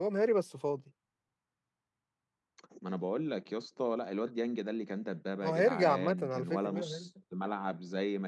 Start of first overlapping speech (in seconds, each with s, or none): 5.4 s